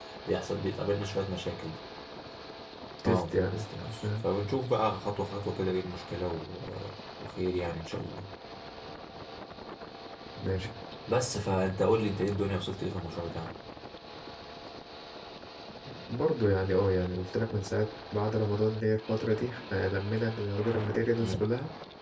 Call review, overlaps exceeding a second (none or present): present